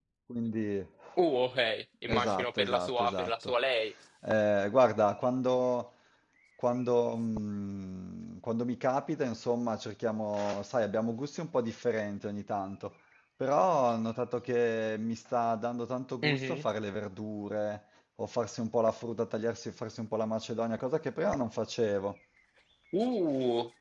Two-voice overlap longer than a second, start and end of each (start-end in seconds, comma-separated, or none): 2.1-3.5